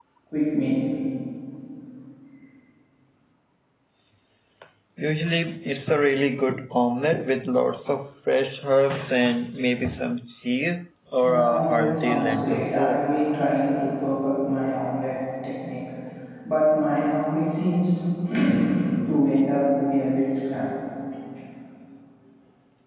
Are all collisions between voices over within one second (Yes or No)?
No